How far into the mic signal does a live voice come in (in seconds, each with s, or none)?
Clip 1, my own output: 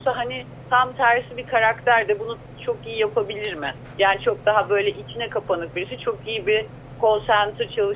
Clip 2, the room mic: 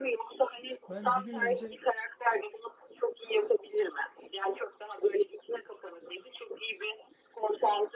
0.9 s